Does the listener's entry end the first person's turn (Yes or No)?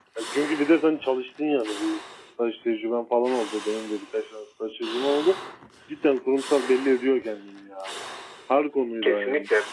Yes